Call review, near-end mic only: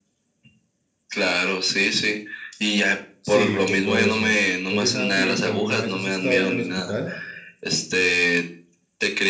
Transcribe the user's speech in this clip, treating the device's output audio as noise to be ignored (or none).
Sí, fue por eso. Oye, Santi, ¿tú alguna vez has estado en el hospital?